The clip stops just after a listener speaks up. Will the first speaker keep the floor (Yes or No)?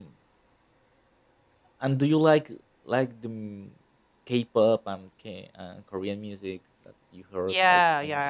No